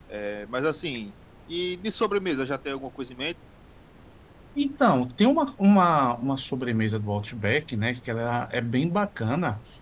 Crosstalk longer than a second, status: none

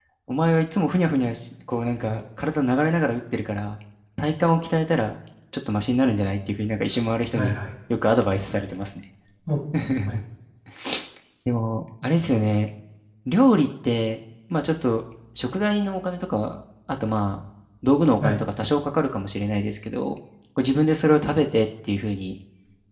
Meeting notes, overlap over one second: none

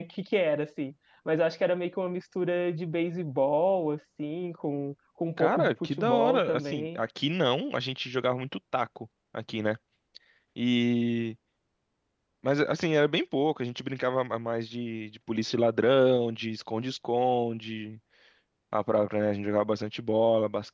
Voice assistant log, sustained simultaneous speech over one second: present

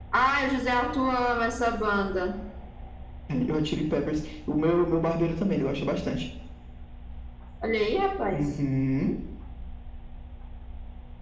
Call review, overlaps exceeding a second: none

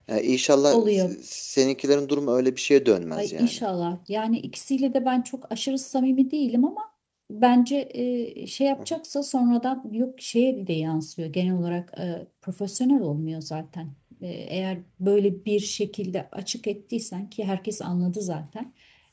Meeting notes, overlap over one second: none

